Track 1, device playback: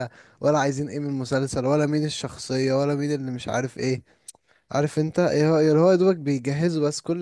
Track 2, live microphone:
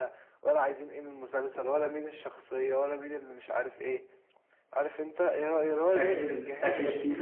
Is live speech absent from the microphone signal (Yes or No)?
No